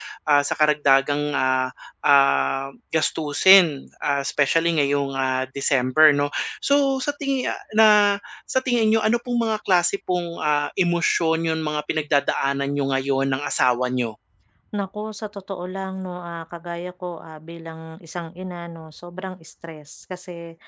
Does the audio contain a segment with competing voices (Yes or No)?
No